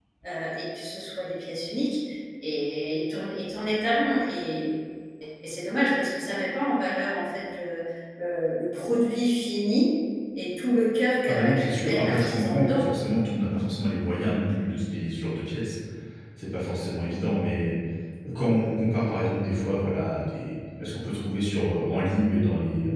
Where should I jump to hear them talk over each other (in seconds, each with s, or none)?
11.3 s